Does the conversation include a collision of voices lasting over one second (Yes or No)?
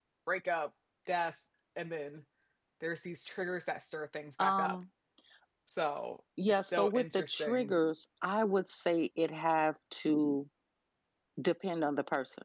Yes